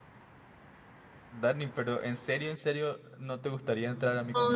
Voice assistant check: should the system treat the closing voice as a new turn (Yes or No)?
Yes